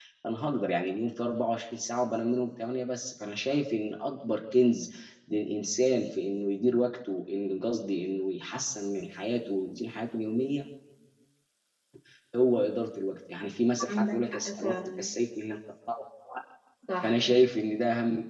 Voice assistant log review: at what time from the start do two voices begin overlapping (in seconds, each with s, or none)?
13.8 s